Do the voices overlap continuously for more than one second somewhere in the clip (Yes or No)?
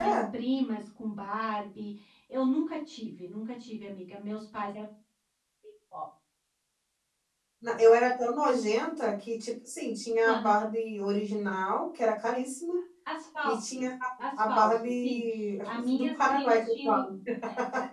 Yes